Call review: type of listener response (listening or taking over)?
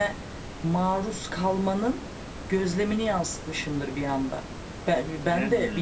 listening